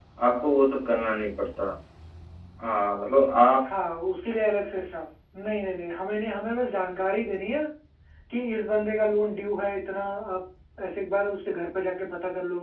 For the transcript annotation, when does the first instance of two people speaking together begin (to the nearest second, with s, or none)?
none